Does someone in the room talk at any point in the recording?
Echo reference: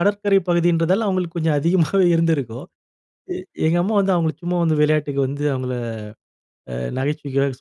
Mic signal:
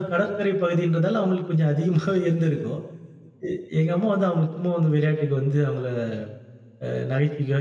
No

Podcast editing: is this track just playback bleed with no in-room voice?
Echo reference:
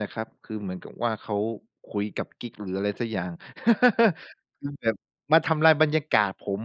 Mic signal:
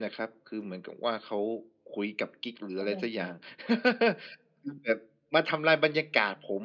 No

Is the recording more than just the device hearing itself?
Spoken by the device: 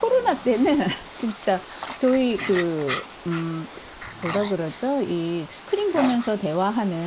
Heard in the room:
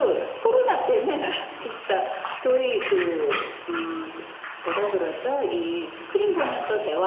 No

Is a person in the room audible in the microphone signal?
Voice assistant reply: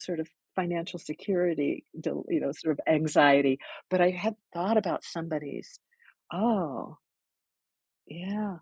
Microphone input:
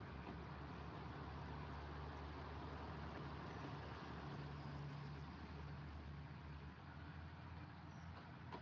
No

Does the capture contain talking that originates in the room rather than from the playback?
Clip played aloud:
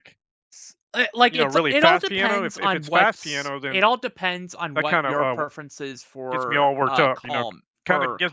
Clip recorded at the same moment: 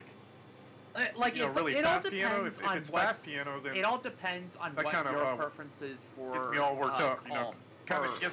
No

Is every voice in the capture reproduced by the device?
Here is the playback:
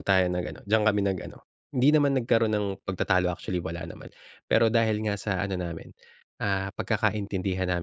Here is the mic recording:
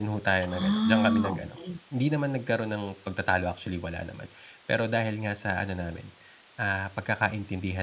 No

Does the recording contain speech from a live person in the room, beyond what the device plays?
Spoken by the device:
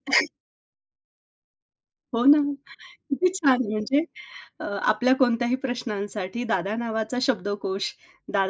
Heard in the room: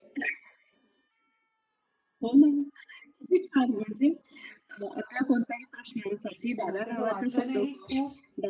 Yes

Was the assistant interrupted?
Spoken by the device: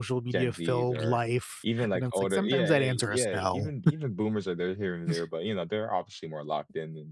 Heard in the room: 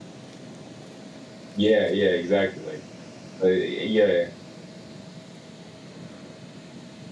Yes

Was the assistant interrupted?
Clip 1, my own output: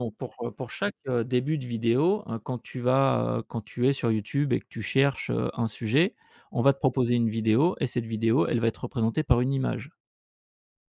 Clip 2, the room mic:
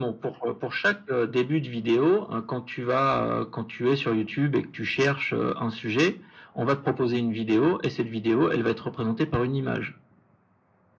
No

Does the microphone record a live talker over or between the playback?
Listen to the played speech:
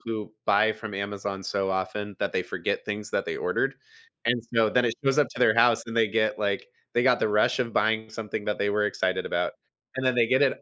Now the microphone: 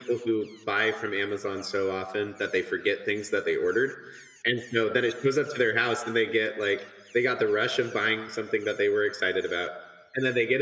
No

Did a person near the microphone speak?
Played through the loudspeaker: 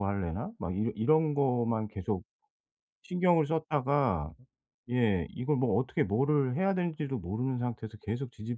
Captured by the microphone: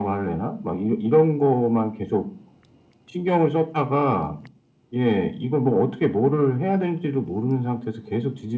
No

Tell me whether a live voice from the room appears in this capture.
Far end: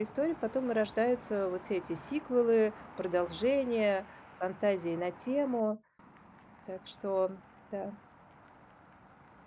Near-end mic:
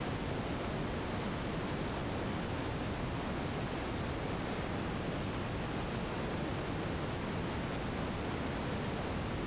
No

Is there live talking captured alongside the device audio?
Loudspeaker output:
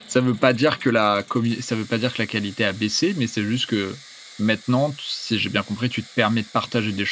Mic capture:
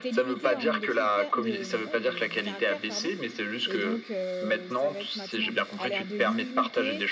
Yes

